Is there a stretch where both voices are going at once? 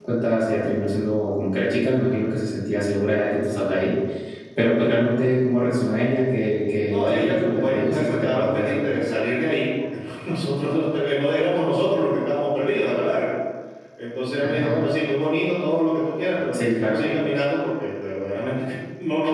Yes, from 6.9 s

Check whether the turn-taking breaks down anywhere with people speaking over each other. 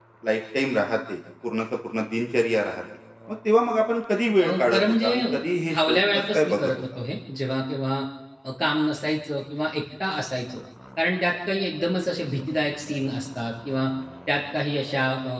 Yes, from 4.4 s

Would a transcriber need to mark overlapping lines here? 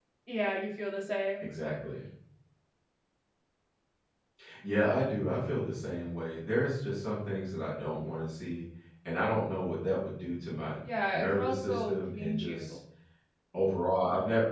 Yes, from 10.8 s

